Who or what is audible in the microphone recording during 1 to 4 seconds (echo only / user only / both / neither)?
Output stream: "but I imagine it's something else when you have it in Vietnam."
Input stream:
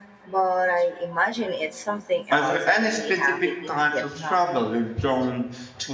both